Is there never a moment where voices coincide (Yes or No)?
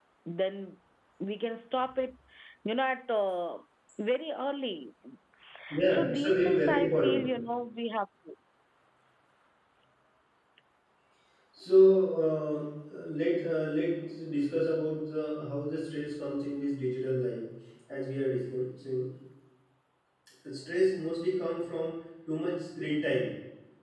No